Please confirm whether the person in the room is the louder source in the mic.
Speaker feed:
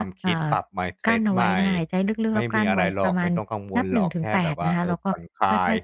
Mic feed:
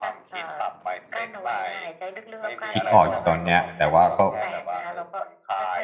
Yes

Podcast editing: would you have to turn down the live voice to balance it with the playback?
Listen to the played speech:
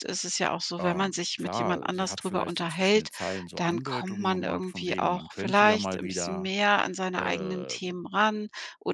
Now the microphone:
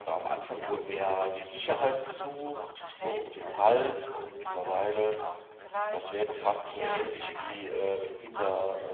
Yes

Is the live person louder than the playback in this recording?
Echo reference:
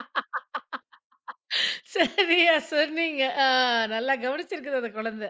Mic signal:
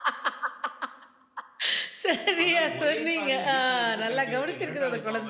No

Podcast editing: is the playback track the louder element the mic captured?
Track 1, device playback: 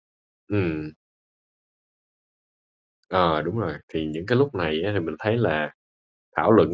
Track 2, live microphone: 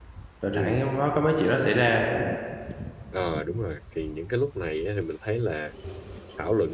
No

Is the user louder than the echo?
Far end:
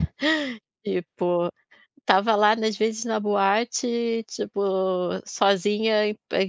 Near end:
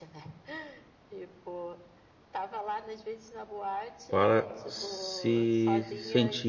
Yes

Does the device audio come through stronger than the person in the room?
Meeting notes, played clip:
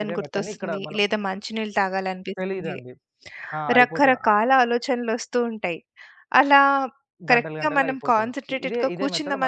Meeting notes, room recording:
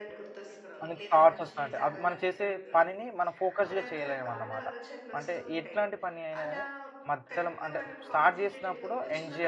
No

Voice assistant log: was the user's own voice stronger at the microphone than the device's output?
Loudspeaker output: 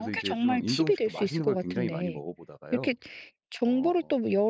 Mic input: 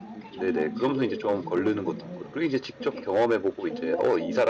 Yes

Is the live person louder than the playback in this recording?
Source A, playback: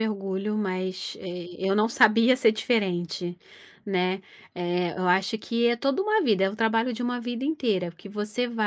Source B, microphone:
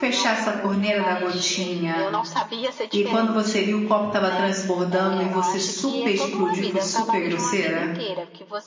Yes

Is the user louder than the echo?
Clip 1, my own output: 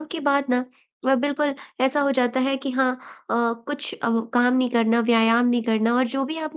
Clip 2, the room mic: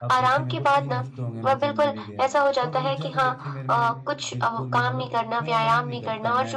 No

